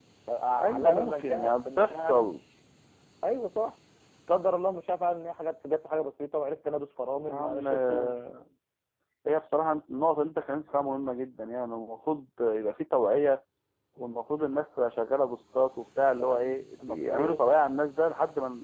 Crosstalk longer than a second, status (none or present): present